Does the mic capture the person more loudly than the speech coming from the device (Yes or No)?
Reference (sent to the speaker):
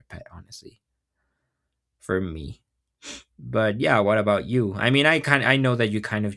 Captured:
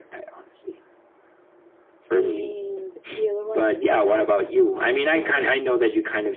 No